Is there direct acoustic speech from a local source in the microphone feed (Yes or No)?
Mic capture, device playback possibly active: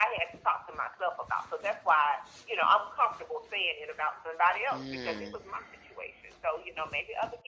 Yes